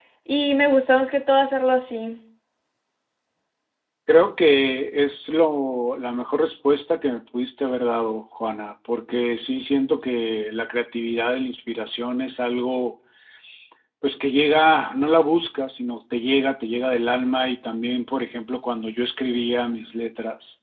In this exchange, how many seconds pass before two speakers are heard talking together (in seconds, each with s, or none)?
none